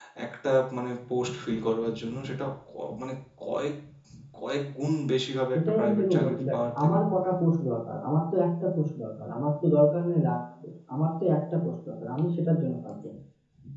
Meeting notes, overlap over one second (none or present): present